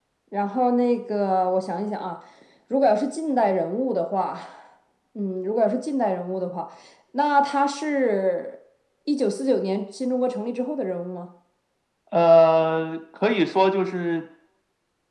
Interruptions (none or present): none